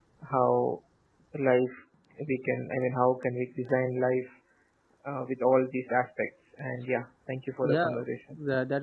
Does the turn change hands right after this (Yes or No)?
Yes